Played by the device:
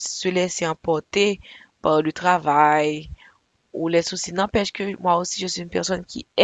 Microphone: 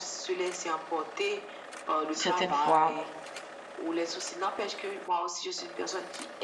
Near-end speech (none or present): present